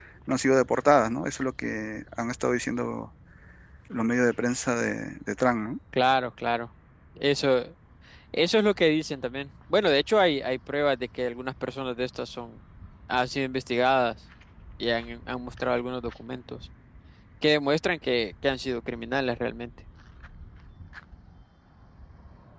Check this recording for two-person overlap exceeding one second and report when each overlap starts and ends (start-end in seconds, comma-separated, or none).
none